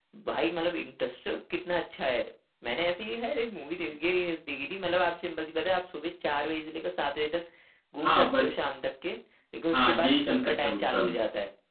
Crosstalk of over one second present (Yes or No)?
Yes